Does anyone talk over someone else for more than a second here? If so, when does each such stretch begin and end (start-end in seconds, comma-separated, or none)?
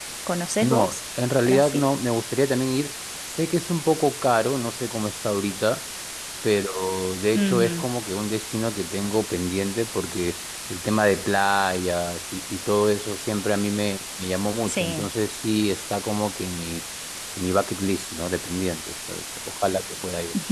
none